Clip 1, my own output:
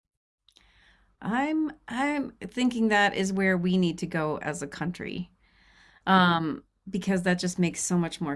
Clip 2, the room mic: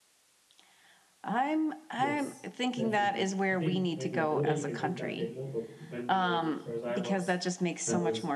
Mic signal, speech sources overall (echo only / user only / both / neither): both